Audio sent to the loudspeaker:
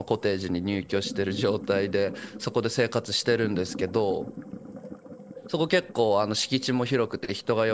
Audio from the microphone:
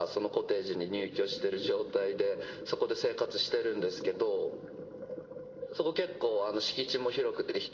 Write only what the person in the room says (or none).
none